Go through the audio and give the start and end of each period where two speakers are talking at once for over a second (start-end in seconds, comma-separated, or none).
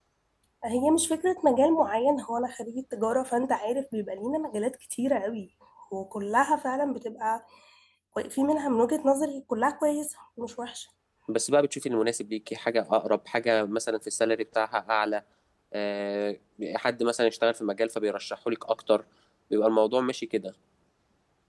none